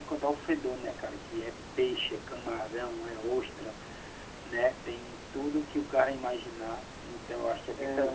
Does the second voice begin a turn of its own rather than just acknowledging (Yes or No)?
Yes